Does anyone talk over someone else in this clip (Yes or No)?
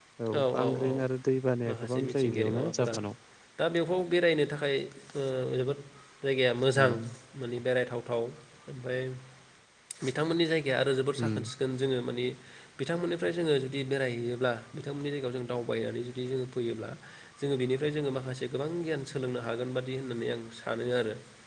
Yes